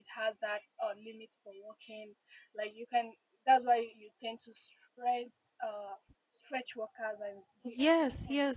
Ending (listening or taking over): taking over